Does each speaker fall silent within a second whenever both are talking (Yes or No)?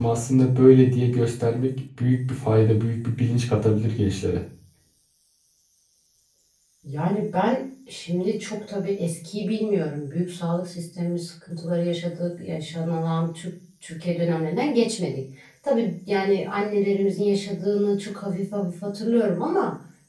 Yes